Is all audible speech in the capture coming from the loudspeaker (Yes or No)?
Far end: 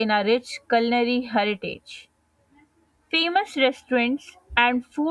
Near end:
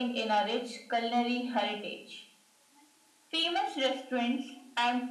Yes